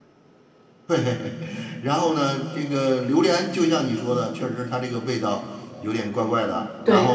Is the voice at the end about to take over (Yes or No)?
Yes